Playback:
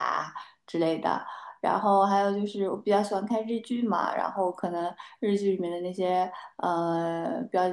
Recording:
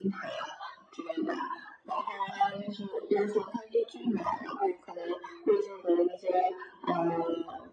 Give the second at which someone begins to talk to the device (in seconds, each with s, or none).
none